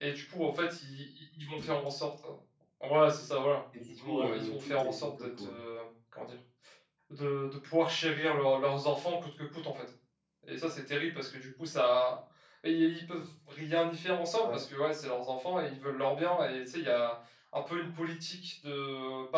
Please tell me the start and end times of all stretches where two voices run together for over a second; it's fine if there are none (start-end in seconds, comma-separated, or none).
3.9-5.6